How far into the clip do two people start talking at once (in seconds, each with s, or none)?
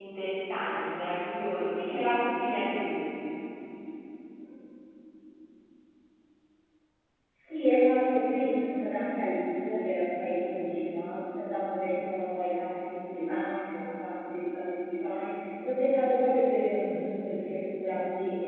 none